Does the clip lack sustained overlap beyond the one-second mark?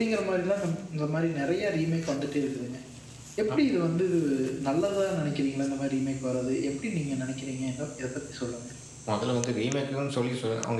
Yes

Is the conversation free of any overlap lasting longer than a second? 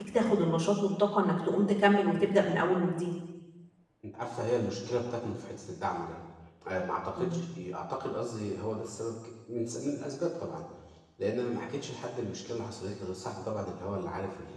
Yes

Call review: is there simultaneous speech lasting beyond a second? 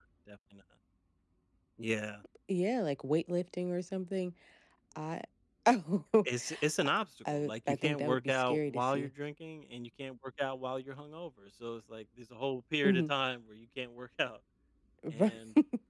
Yes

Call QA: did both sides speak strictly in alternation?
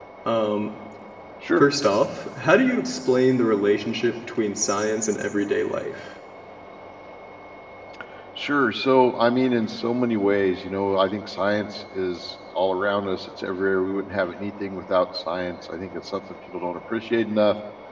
Yes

